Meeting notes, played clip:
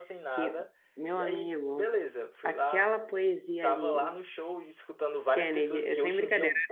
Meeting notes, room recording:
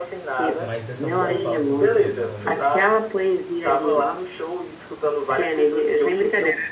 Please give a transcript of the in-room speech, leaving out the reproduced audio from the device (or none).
Mas essa música fala sobre o quê, normalmente?